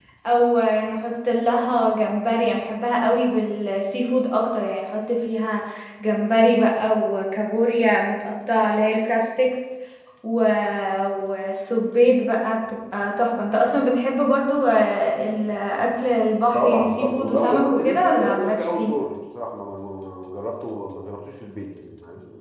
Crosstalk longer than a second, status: present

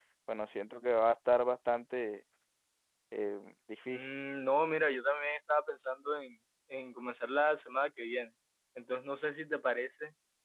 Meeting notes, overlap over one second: none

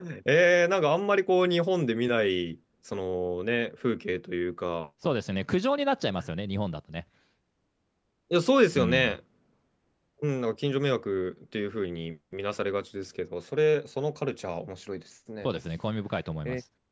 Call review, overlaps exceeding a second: none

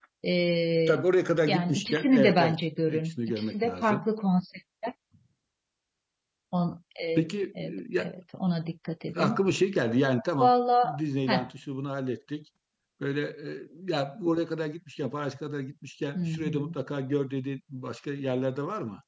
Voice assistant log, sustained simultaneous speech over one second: present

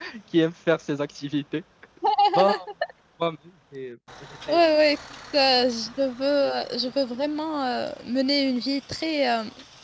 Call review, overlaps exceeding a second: none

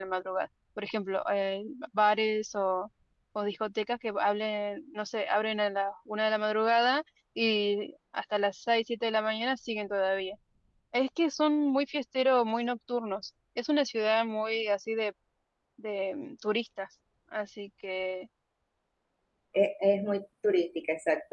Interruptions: none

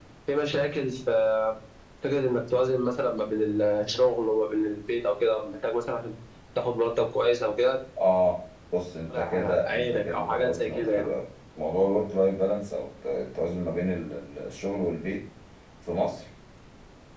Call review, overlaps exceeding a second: present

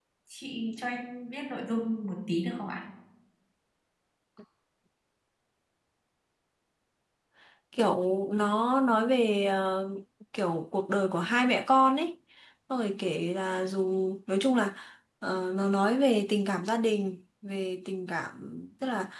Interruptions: none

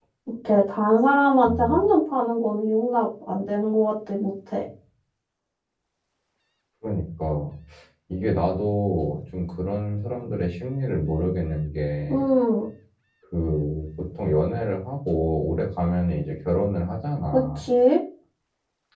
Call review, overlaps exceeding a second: none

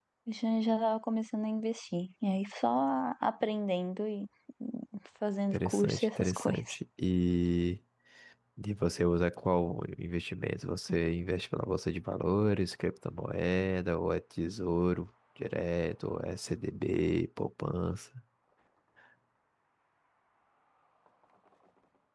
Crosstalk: present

